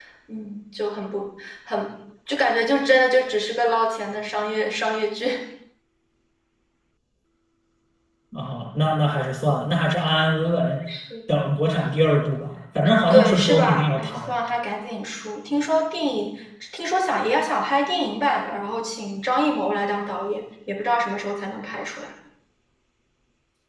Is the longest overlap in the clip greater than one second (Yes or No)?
Yes